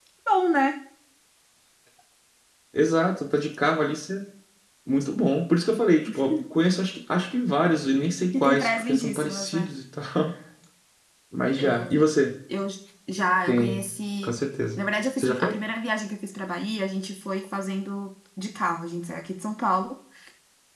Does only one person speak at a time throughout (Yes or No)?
No